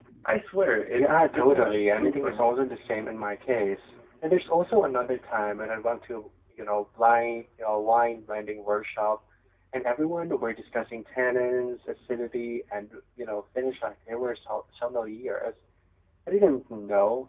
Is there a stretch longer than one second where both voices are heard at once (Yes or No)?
Yes